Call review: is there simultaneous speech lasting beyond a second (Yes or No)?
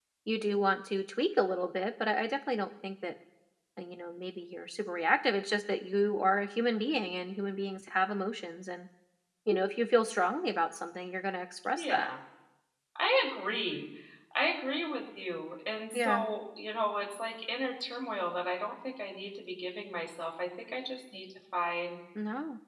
No